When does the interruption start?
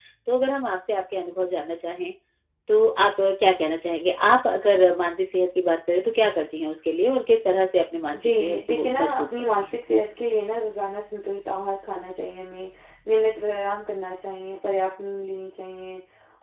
8.1 s

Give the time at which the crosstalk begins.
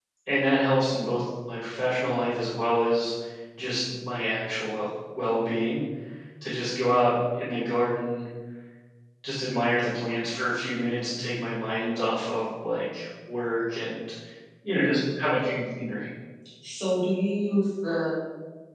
none

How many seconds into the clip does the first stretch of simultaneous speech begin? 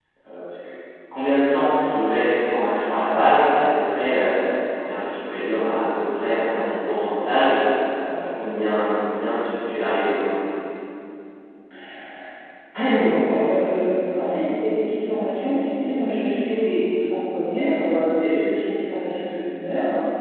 none

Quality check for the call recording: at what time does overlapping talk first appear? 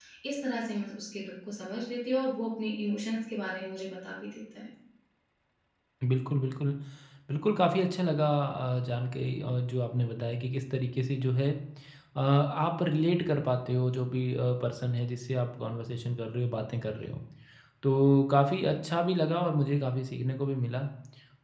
none

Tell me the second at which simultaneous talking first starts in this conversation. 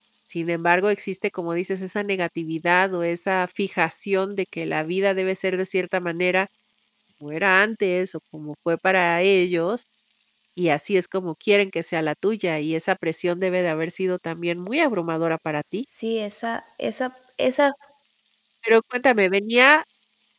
none

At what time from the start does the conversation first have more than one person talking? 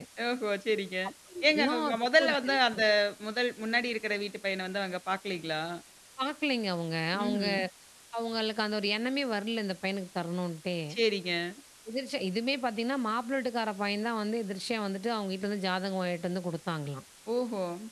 1.5 s

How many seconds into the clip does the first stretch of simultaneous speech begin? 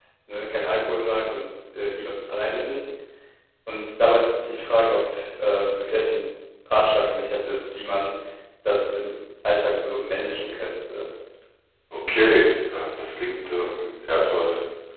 none

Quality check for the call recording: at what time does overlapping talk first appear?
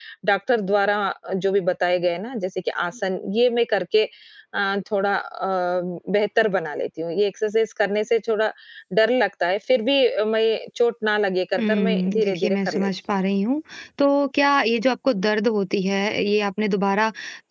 11.6 s

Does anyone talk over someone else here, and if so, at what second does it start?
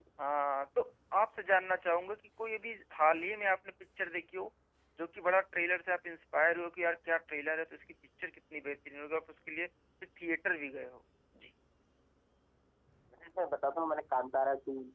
none

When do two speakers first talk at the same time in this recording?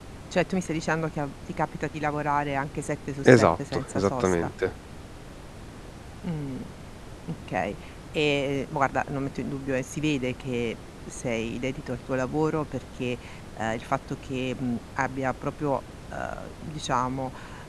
3.2 s

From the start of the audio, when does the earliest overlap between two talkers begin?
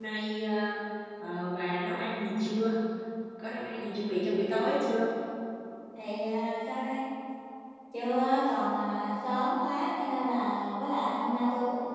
none

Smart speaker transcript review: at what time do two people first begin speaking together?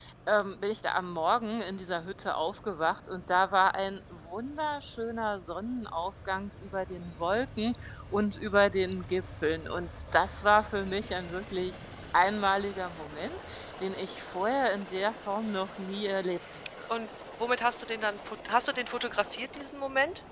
none

